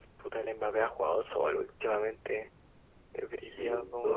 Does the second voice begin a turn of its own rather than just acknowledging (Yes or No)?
Yes